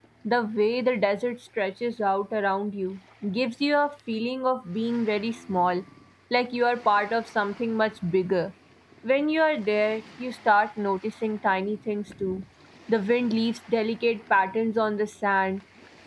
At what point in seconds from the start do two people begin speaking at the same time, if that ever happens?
none

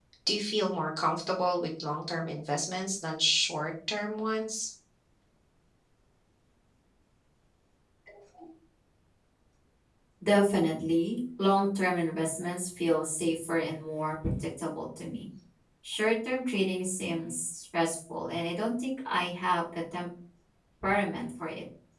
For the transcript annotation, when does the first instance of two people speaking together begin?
none

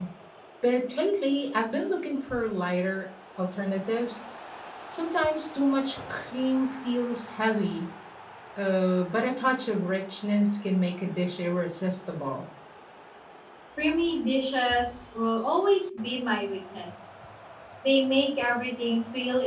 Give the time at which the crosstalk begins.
none

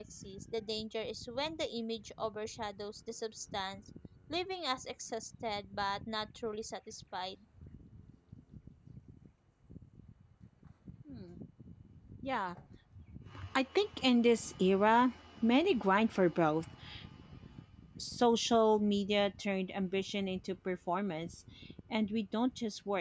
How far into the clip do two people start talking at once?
none

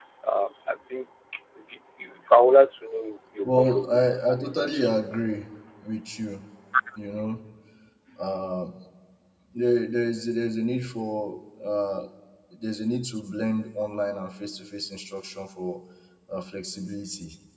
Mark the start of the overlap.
3.4 s

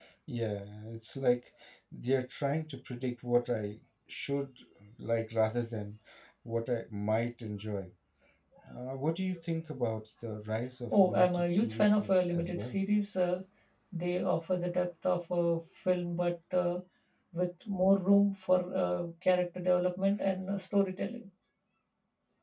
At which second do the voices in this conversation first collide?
10.9 s

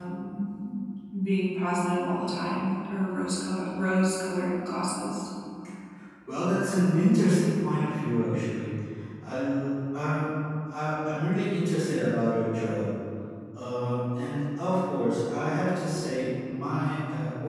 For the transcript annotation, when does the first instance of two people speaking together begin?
none

